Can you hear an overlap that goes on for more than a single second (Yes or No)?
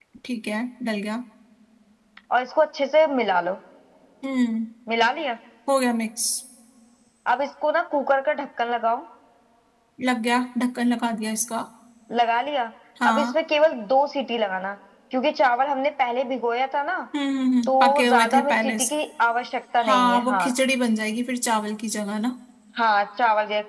Yes